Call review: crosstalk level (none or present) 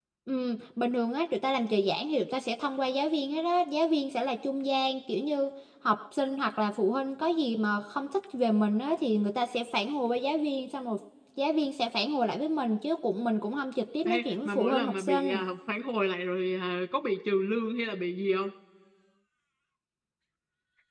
present